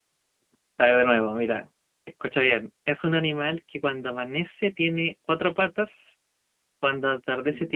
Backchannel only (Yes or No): Yes